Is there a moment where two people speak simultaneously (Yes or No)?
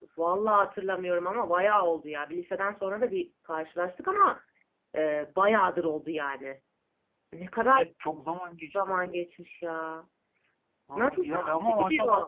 Yes